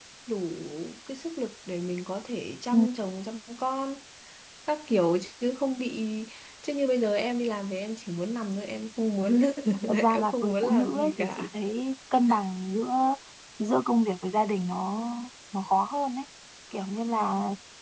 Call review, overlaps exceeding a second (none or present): present